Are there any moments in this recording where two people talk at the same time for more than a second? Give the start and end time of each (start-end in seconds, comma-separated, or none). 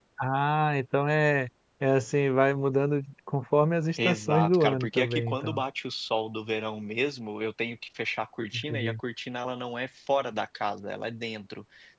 4.0-5.6